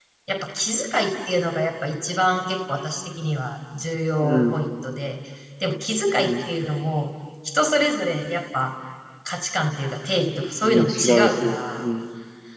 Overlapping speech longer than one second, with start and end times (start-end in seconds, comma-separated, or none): 10.6-11.8